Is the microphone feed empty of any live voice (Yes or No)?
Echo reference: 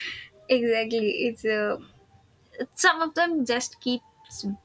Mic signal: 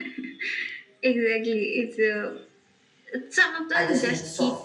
No